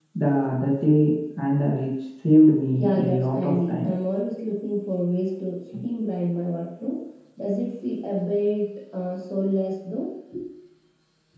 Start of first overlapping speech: 3 s

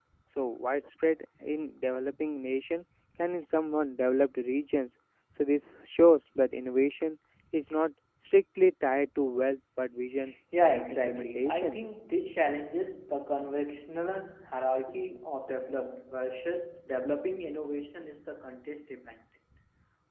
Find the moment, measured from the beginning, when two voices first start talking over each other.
11 s

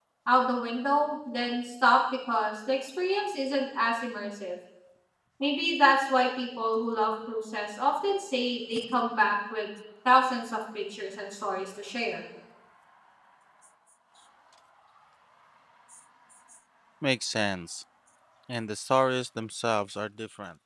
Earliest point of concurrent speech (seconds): none

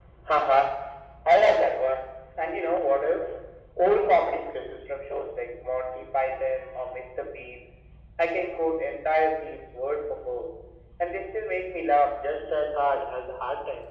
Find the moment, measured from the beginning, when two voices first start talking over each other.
none

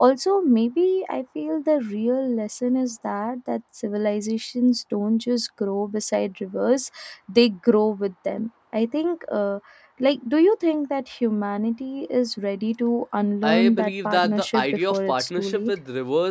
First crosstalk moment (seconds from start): 13 s

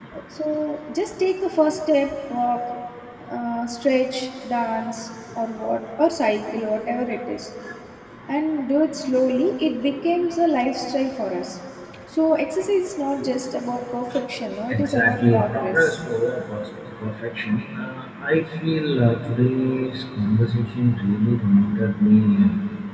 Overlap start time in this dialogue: 15 s

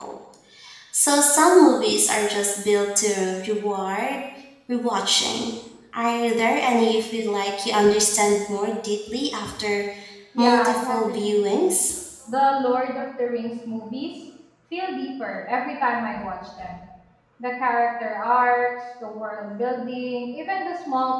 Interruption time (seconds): 10 s

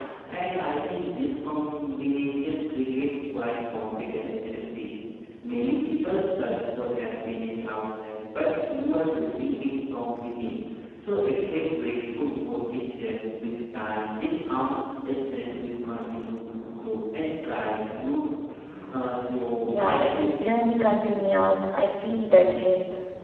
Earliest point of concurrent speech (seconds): 20 s

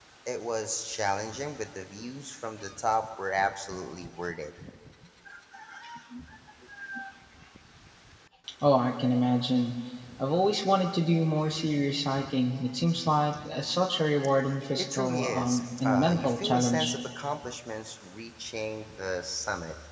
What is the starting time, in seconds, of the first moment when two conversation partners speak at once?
15 s

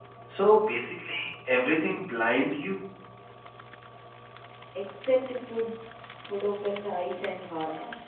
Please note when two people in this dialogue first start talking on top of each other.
none

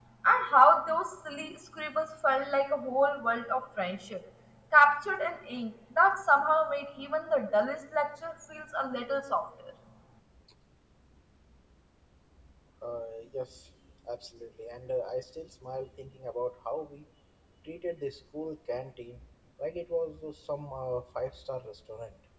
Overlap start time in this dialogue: none

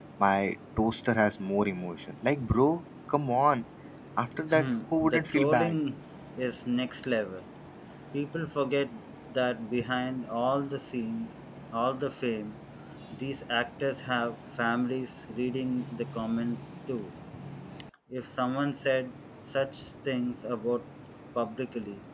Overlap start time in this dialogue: 5 s

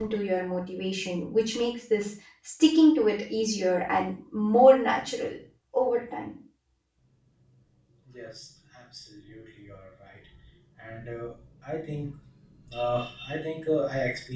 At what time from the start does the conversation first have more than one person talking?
none

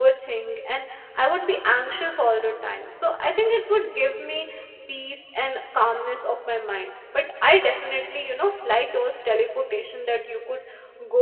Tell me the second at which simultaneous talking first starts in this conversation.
none

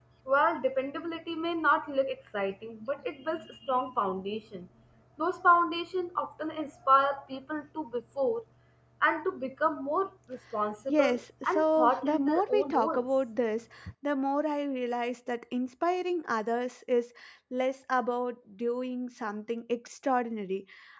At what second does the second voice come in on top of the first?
11 s

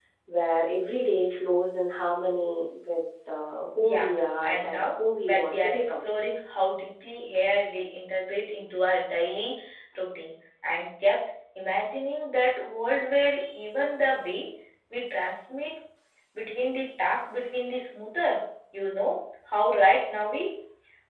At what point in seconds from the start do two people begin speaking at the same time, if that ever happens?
4 s

